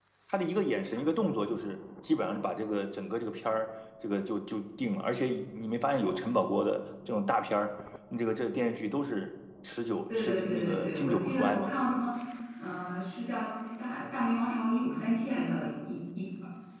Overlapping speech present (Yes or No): Yes